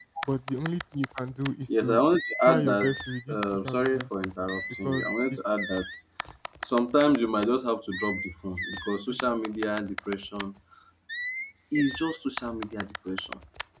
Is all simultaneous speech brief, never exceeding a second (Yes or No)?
No